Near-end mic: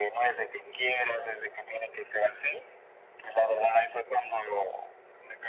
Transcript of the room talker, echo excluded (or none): Okey,